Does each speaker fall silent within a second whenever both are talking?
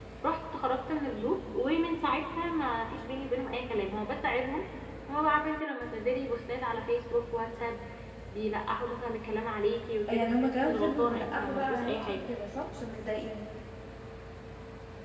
No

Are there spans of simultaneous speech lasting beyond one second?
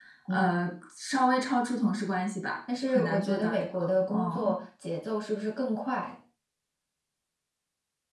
Yes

